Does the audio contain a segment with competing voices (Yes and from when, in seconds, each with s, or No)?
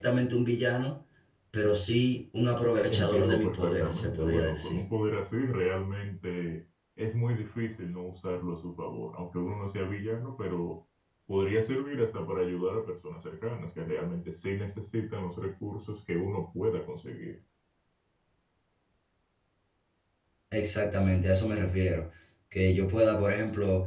Yes, from 2.9 s